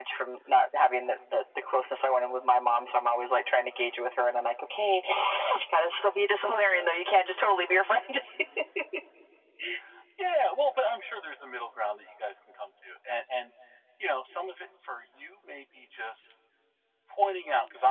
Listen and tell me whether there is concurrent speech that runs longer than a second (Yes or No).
No